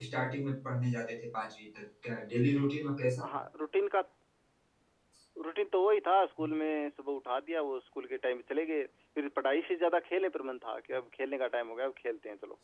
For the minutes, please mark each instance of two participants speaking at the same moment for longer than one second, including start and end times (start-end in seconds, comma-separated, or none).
none